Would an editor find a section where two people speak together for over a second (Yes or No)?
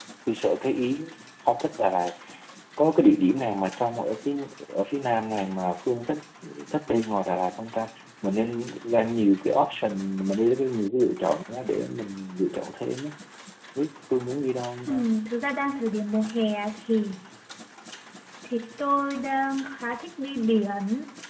No